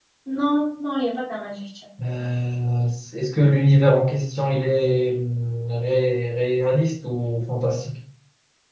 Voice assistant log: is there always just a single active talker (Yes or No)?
Yes